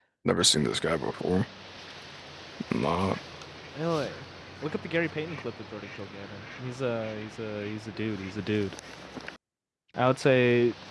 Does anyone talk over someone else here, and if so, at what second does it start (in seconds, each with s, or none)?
none